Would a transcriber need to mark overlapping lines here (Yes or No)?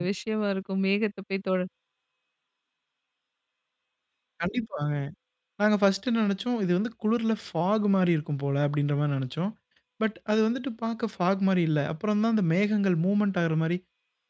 No